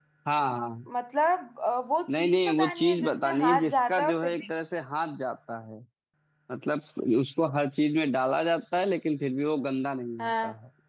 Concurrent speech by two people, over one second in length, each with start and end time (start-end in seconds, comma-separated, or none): 2.1-4.3